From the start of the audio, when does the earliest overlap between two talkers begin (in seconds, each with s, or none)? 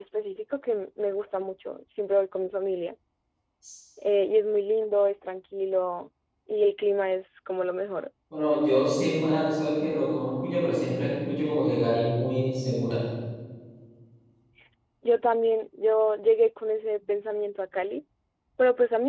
none